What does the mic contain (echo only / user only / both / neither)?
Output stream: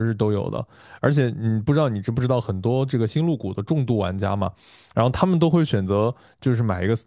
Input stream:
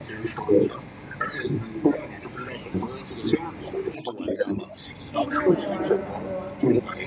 both